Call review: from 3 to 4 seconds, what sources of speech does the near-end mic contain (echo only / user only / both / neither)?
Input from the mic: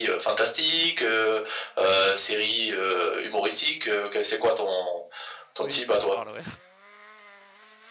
echo only